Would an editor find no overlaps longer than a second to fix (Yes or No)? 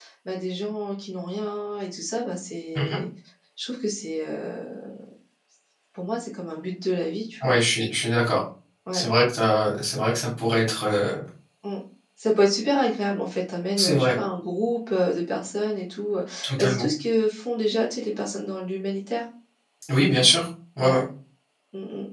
Yes